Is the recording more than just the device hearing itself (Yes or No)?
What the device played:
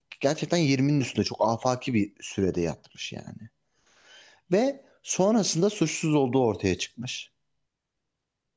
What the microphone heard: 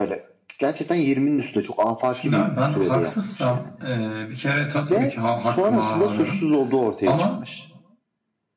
Yes